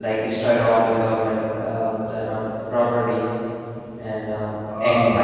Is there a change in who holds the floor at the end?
Yes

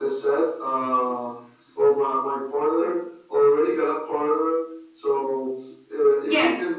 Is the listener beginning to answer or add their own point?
No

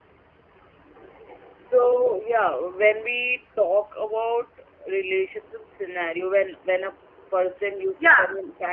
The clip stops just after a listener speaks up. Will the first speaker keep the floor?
No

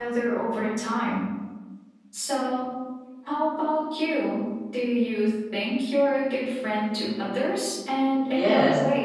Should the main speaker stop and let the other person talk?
Yes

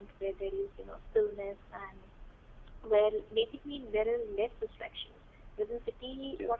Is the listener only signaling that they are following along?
Yes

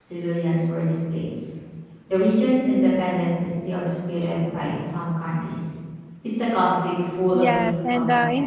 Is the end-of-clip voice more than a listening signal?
Yes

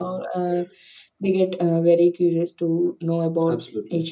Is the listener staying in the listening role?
Yes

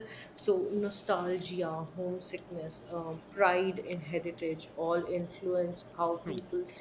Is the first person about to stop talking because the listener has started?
Yes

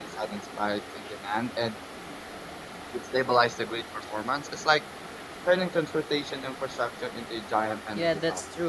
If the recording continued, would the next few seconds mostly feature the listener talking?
Yes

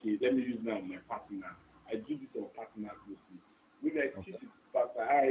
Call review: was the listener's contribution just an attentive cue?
Yes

